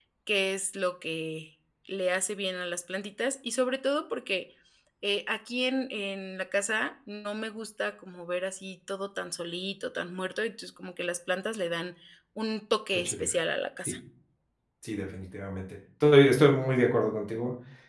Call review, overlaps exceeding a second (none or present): none